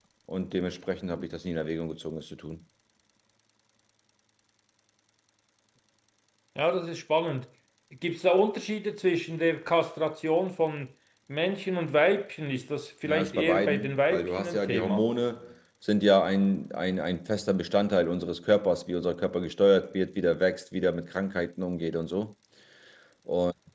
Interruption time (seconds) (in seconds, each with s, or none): 13.1 s